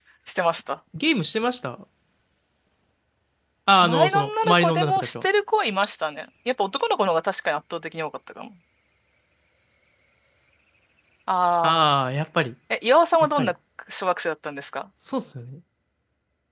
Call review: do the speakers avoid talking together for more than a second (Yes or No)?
No